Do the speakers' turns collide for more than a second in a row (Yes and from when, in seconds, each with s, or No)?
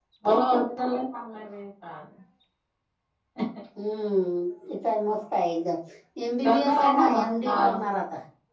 Yes, from 6.4 s